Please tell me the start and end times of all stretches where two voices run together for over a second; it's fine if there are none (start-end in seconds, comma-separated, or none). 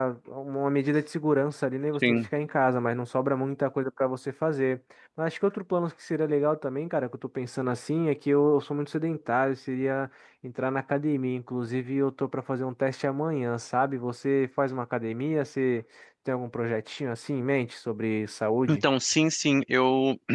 none